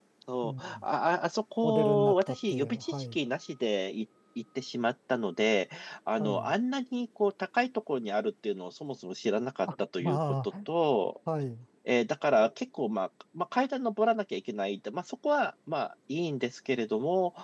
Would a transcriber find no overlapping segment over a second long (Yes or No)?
No